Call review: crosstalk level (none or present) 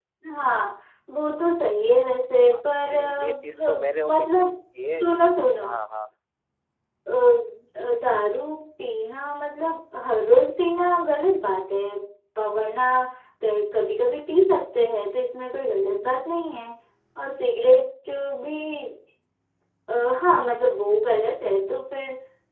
present